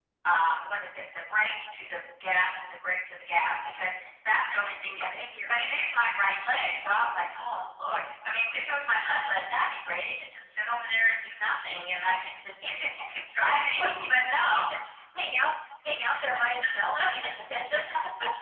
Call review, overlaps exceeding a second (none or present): present